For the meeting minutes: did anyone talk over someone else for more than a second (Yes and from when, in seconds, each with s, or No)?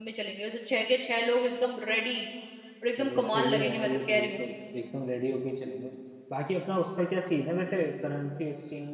Yes, from 3.0 s